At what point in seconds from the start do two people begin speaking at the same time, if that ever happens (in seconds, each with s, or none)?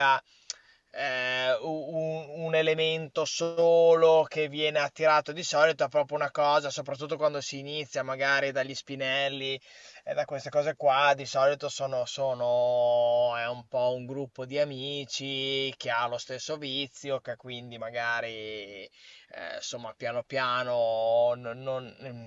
none